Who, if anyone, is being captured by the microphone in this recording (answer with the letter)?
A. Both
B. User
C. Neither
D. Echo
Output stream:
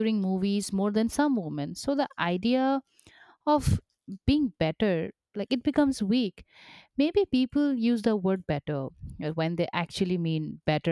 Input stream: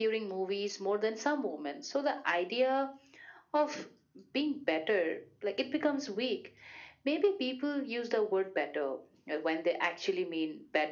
D